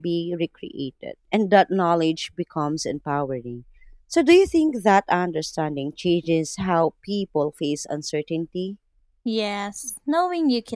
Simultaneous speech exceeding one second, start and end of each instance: none

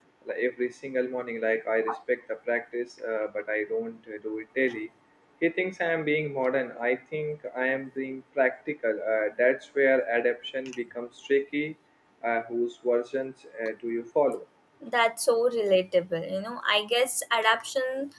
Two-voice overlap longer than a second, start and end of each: none

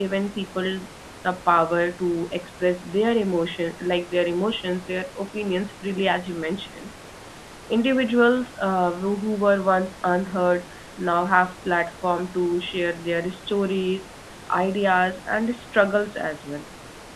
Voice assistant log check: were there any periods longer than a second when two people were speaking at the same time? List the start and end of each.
none

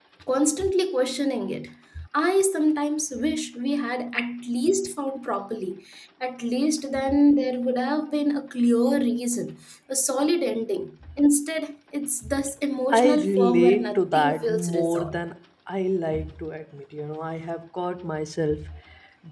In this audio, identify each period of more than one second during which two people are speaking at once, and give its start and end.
12.9-15.2

